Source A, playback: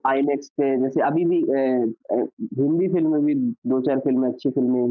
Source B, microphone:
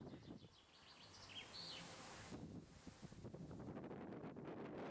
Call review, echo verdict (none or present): none